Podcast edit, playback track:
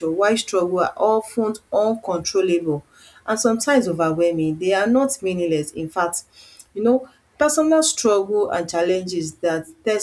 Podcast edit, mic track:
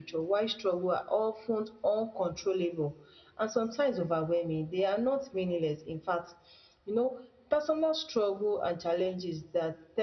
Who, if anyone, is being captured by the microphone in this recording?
echo only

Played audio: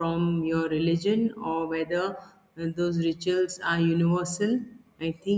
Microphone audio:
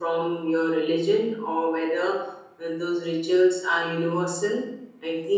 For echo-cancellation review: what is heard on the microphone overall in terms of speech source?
echo only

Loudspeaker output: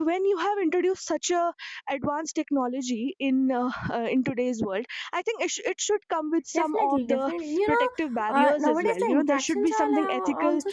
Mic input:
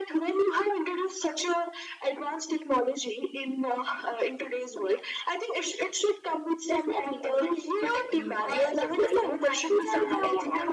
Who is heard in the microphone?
both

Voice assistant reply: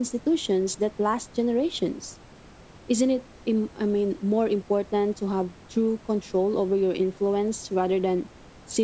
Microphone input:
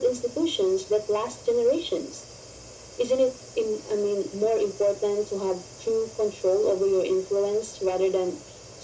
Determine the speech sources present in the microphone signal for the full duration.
echo only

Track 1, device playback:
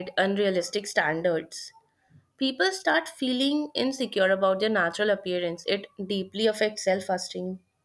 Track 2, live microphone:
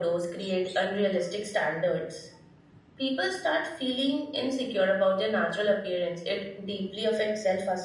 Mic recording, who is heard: echo only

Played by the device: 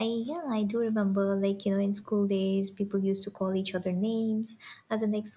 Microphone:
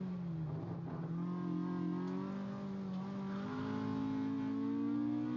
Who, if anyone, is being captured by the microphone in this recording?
neither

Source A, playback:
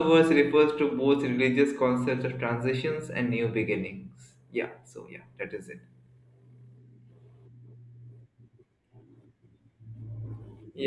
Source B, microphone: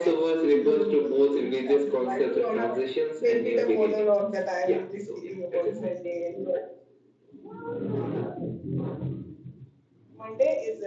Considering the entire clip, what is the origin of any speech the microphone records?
both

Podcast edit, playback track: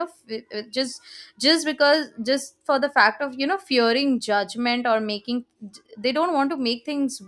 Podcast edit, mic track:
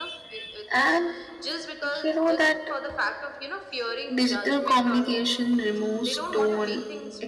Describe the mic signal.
both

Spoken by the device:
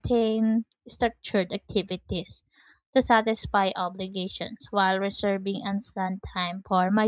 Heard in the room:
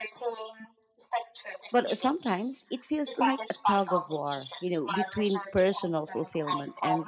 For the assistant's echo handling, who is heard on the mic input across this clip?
both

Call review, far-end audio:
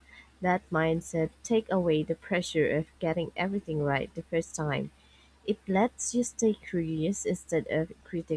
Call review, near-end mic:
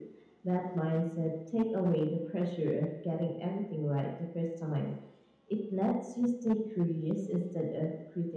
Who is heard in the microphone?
echo only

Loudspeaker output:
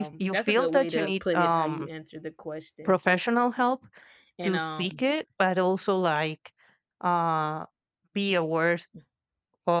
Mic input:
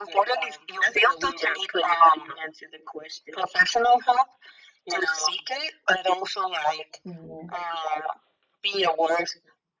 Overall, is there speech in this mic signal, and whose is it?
both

